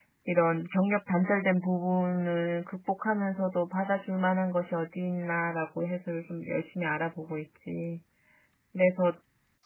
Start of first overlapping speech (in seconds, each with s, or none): none